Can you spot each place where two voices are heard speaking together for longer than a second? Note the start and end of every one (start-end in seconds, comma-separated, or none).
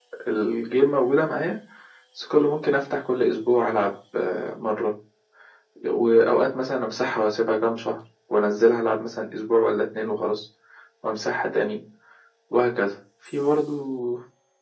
none